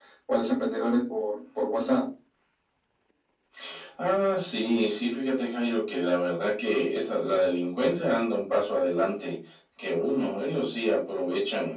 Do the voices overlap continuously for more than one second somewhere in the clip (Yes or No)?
No